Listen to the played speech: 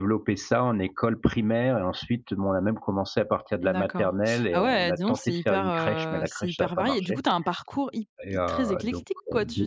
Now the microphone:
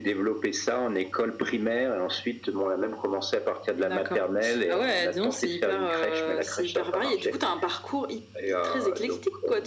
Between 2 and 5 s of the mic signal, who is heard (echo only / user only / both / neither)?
echo only